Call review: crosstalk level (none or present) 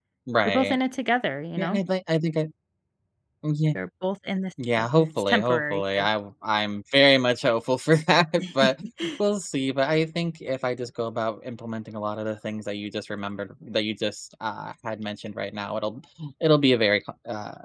present